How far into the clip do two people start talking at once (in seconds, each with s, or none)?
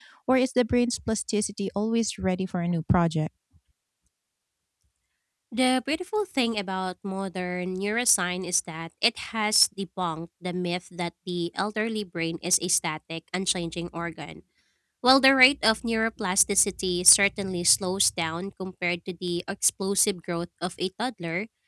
none